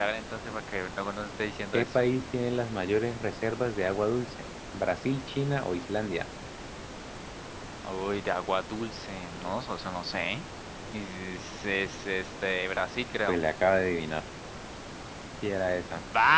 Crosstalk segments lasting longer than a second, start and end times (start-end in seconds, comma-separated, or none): none